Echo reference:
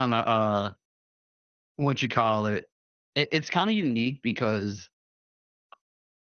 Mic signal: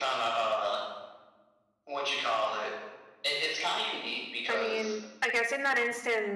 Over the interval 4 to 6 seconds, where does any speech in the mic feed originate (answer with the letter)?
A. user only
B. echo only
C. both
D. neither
C